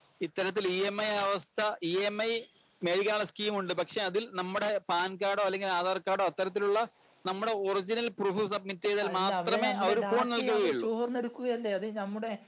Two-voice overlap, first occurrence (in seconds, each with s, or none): 9.0 s